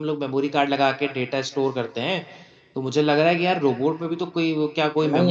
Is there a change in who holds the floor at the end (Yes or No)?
Yes